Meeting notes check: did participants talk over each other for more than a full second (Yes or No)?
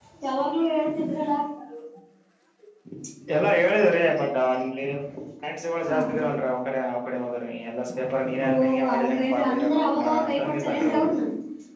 Yes